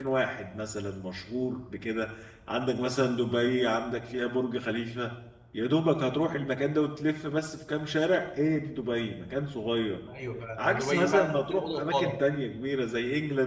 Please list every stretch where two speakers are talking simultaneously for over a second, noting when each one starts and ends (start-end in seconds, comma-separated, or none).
10.6-12.2